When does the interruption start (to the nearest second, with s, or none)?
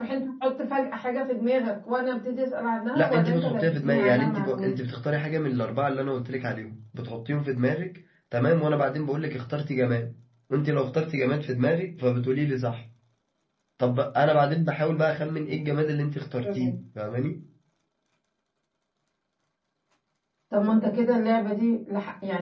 3 s